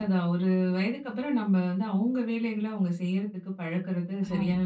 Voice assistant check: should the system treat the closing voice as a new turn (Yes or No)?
Yes